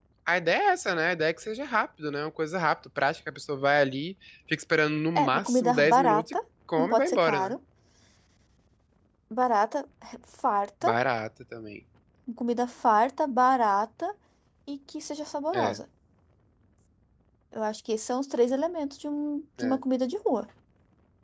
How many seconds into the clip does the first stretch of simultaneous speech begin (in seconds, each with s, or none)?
5.2 s